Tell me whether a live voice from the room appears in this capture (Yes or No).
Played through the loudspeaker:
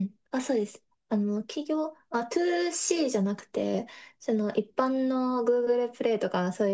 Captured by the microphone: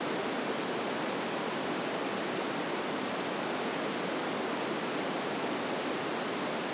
No